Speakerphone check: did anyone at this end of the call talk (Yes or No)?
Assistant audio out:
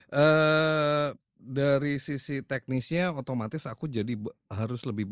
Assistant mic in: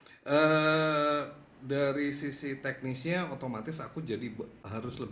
No